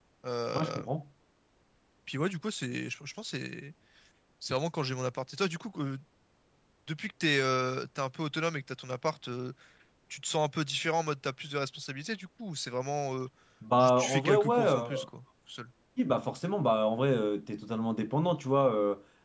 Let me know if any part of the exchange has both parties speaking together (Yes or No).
Yes